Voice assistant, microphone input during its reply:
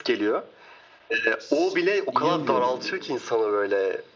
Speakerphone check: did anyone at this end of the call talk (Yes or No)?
Yes